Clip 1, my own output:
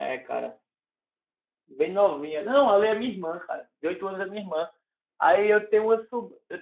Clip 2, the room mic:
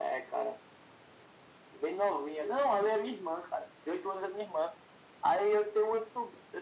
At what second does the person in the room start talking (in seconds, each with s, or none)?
none